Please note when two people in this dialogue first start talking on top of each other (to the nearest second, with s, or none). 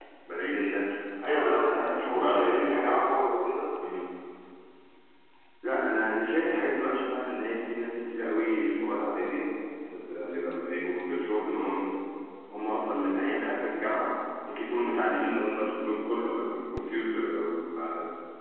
1 s